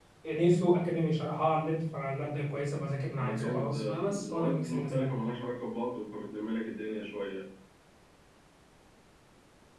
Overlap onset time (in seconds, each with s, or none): 3.1 s